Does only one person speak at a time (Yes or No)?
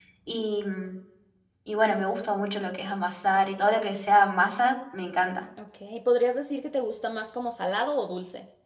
Yes